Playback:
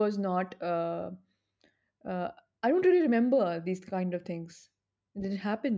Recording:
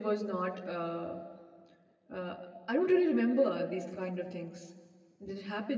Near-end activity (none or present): none